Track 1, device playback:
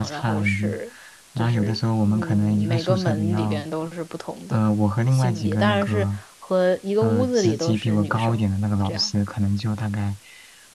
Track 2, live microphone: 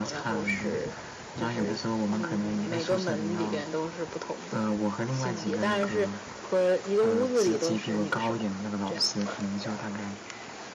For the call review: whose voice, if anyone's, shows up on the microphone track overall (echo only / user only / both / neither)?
echo only